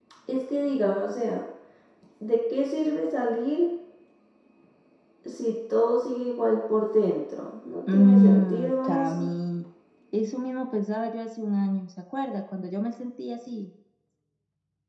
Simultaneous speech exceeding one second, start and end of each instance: 7.9-9.2

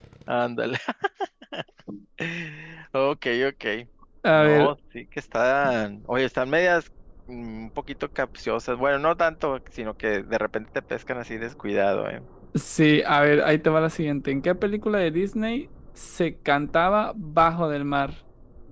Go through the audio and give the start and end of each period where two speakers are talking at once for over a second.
none

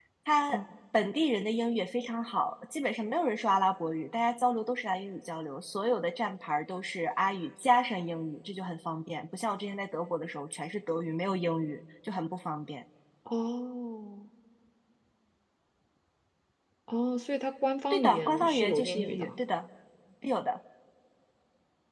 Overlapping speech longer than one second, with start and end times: 17.9-19.3

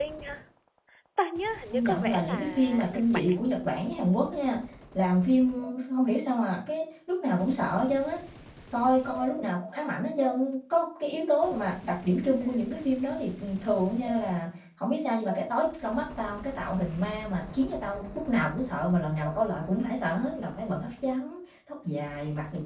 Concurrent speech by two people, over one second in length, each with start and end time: 1.7-3.4

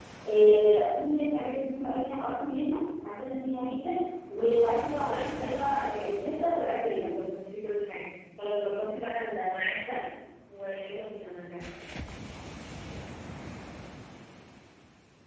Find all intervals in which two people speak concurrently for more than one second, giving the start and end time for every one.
5.0-7.1

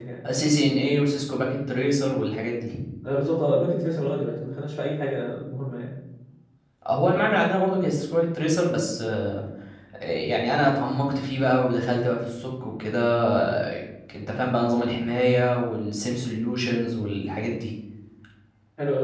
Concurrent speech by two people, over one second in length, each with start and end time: none

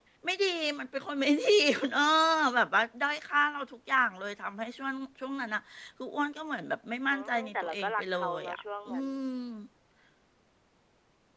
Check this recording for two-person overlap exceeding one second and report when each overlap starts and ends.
7.1-9.1

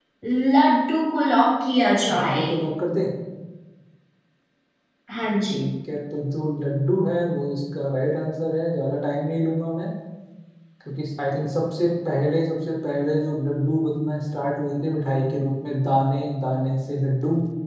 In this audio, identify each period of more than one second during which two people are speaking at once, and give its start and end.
none

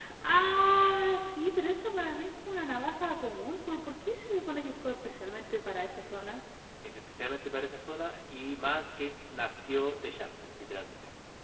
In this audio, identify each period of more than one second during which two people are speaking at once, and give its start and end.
none

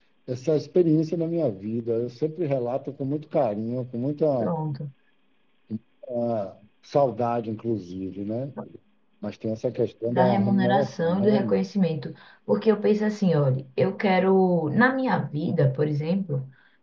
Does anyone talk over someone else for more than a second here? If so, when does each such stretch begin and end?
10.1-11.5

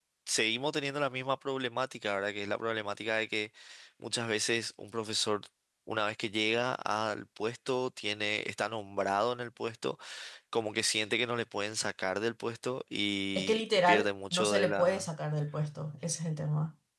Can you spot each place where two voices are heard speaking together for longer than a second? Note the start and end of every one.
13.4-15.1

